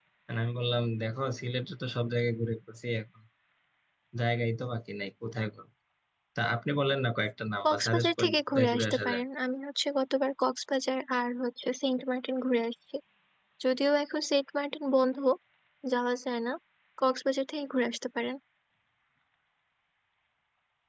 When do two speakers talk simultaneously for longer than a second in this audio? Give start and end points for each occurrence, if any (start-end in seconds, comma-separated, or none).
7.6-9.2